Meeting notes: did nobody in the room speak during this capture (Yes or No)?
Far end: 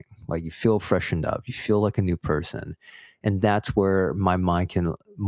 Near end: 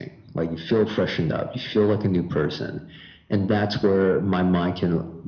Yes